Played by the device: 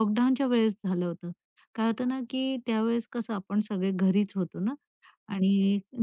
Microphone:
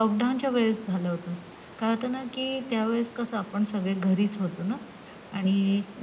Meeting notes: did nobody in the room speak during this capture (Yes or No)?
Yes